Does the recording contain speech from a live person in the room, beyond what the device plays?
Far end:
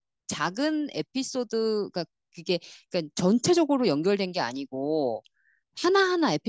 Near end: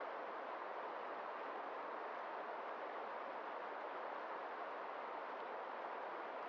No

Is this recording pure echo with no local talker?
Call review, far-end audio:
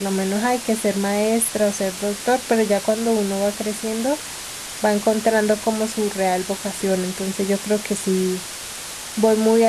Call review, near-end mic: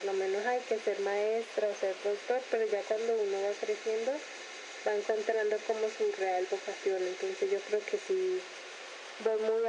Yes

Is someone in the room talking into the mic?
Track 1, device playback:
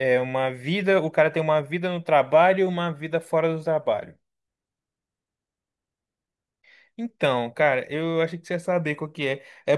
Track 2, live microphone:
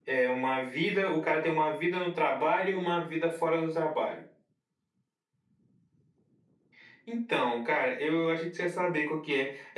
No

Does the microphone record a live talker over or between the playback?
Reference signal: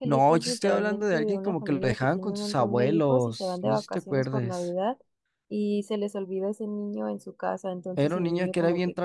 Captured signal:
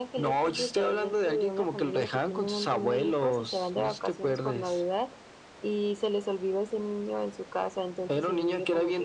No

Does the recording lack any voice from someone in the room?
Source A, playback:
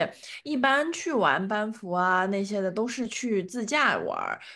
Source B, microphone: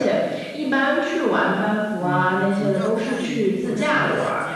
No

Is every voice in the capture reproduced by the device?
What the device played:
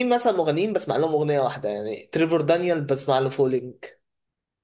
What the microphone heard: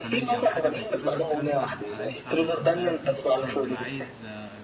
No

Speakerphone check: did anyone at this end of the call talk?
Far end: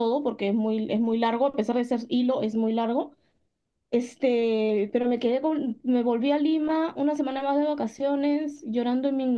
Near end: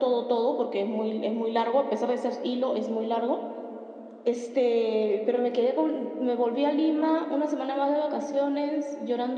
No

